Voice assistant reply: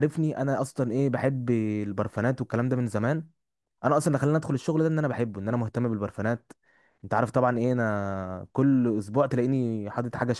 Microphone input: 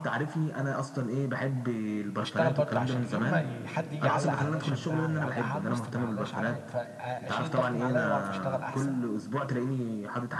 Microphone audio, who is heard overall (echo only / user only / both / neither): both